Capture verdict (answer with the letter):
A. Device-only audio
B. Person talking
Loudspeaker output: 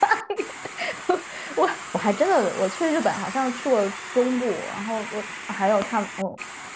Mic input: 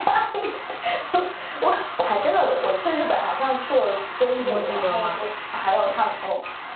B